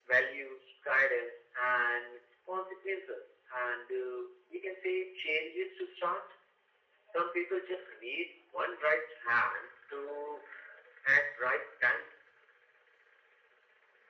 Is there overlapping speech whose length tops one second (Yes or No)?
No